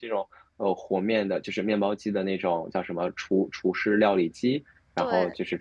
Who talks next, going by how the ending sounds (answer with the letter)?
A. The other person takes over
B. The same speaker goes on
B